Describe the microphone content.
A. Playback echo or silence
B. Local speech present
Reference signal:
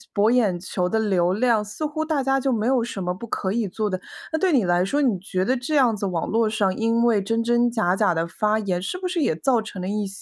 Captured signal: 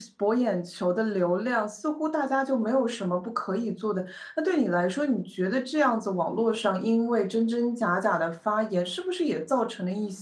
A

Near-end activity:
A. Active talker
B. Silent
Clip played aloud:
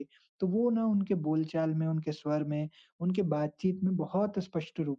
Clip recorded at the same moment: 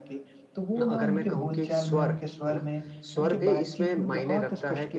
A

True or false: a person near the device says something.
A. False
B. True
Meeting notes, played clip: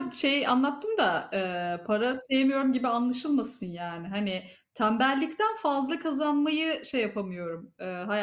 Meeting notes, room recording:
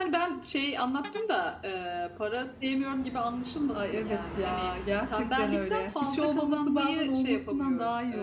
B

